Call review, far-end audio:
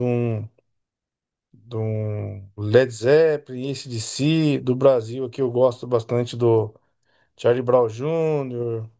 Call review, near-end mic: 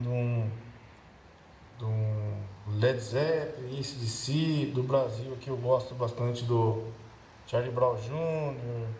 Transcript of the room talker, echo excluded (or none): none